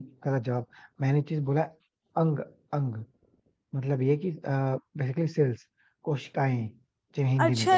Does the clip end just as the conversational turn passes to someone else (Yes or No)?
Yes